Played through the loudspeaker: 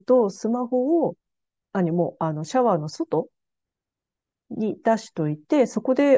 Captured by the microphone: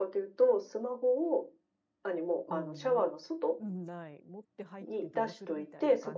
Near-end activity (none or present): present